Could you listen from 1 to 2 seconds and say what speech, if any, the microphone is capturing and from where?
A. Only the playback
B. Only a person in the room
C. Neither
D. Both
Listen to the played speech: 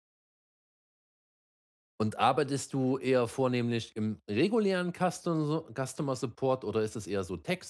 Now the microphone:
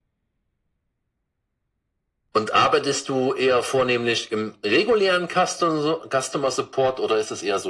C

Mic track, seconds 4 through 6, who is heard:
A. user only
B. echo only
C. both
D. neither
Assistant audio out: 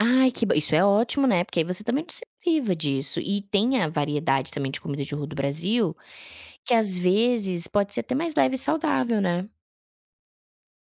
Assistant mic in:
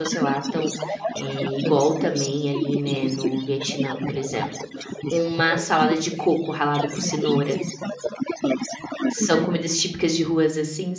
C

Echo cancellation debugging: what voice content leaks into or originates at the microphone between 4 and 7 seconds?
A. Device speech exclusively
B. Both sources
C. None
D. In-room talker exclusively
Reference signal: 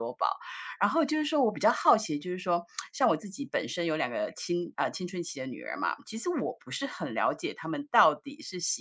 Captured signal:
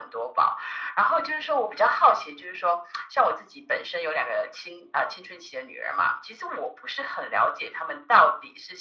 A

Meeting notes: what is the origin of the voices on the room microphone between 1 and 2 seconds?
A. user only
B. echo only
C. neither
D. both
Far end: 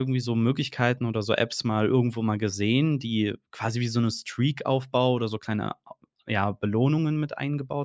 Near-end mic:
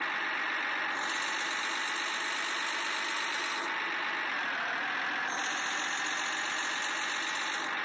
C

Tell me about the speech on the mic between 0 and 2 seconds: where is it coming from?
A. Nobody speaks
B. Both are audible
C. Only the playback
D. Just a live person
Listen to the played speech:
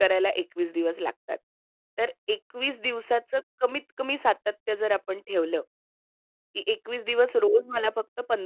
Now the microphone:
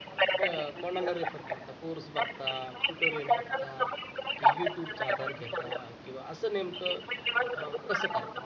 B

